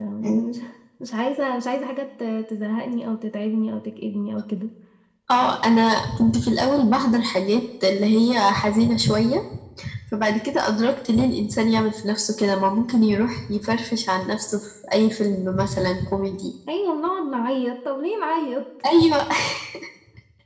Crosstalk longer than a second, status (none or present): none